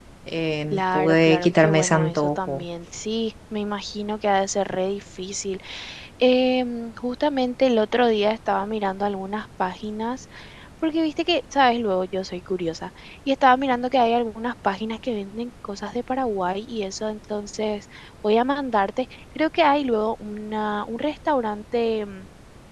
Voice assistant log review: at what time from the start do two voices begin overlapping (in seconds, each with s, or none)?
0.7 s